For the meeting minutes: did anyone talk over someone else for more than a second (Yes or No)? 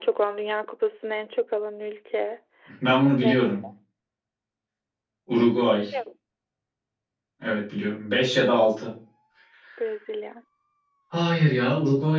No